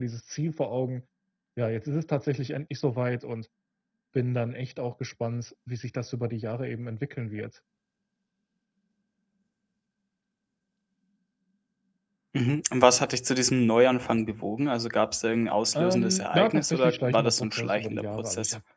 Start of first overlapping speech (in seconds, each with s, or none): 15.7 s